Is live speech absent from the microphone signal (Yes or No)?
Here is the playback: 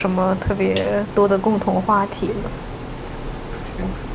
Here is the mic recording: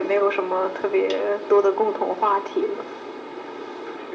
Yes